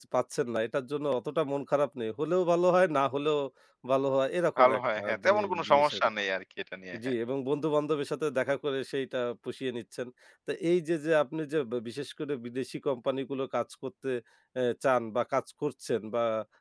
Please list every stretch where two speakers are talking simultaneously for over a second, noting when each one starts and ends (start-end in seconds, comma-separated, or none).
4.6-6.1